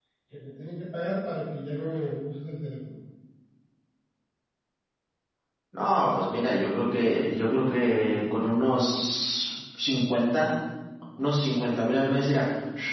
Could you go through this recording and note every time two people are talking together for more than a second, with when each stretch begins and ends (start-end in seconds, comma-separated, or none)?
none